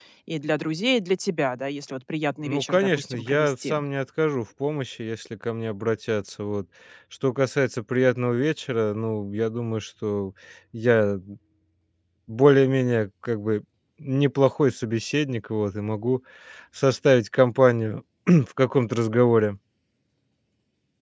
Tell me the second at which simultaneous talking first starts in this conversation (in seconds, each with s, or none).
2.5 s